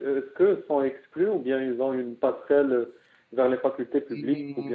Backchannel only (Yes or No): No